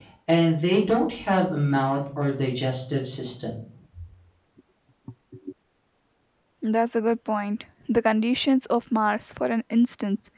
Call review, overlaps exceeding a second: none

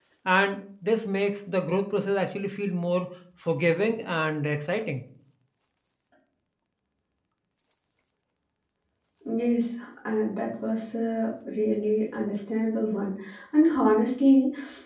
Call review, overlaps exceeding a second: none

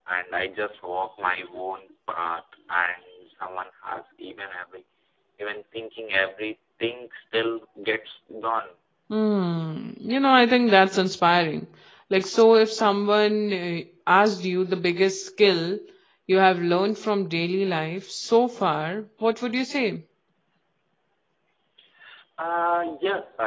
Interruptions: none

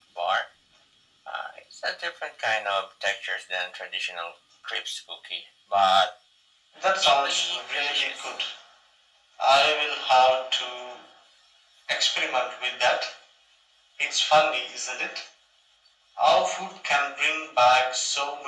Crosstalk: present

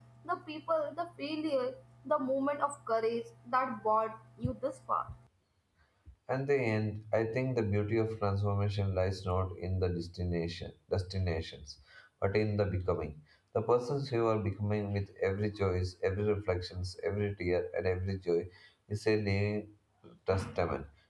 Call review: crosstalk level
none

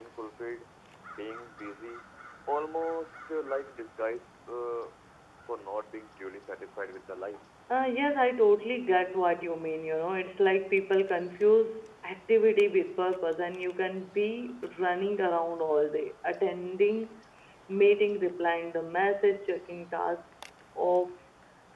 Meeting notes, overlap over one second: none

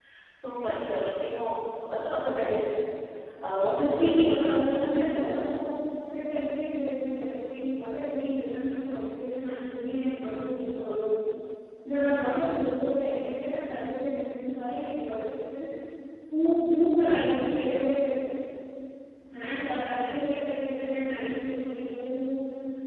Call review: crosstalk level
present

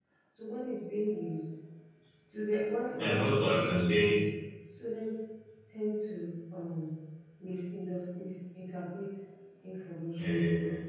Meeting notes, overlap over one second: present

